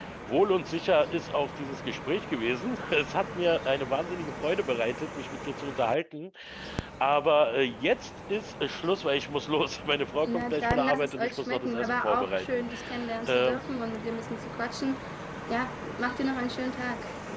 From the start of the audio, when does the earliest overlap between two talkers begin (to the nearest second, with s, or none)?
10 s